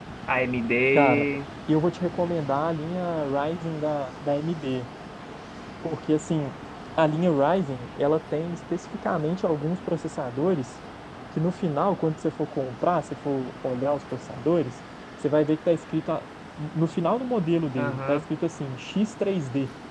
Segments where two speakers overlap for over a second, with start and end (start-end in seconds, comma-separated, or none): none